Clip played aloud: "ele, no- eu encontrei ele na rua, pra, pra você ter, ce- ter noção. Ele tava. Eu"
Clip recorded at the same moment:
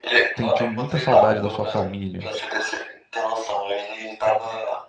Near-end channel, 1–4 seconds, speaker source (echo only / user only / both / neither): both